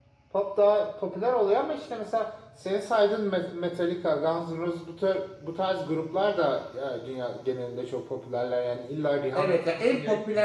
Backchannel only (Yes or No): No